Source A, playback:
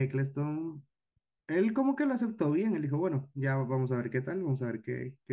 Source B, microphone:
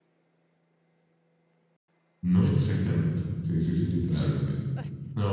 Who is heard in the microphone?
user only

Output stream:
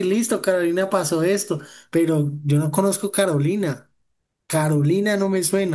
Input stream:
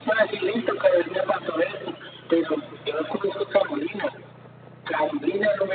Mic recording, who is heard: echo only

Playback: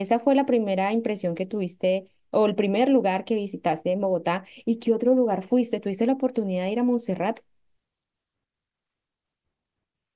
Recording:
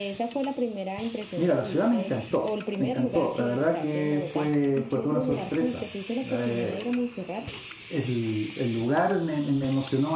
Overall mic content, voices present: both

